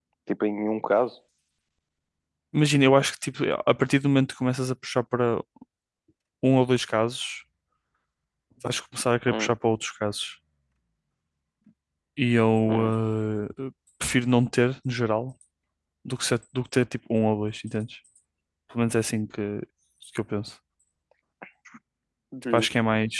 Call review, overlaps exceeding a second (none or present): none